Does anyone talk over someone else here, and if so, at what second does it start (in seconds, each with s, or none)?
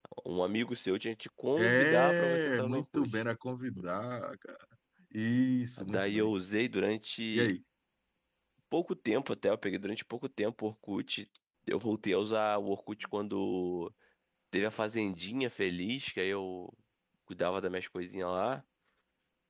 1.6 s